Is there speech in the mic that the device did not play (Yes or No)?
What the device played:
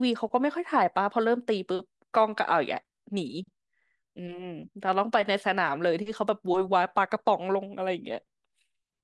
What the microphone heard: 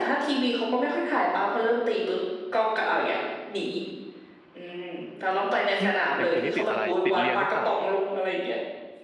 Yes